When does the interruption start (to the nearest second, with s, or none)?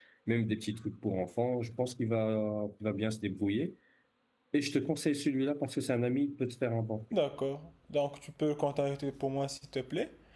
none